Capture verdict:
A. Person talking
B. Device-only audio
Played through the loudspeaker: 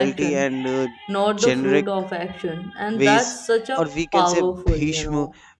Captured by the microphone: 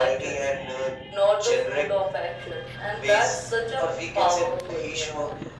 B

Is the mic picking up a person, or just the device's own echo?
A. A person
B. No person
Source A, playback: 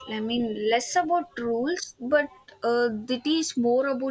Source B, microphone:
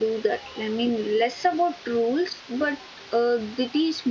B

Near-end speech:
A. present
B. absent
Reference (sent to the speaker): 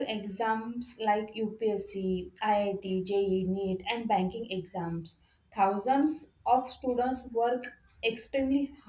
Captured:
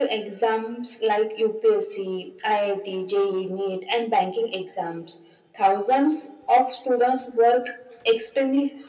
B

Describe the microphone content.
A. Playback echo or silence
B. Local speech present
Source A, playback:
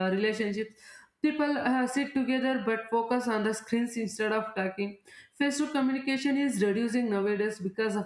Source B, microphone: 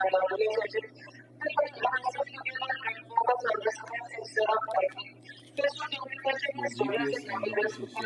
B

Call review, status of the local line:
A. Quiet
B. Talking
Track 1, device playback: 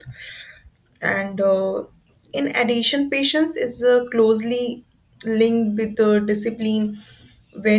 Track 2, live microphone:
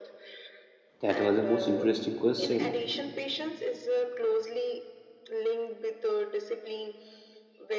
B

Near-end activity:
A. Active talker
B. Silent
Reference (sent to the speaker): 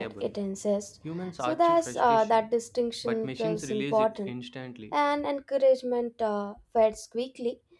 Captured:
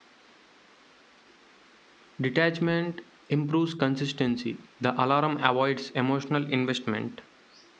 A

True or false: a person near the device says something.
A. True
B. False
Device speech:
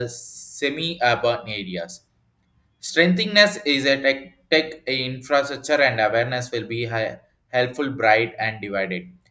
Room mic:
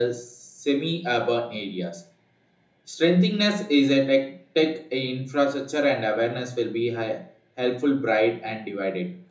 B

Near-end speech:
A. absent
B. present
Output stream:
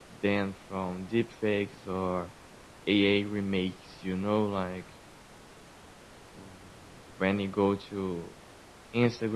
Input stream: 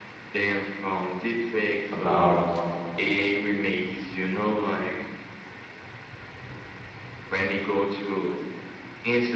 B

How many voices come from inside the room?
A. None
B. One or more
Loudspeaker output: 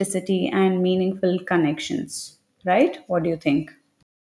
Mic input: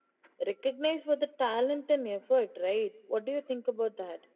B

